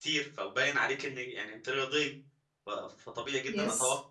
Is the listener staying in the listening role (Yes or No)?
Yes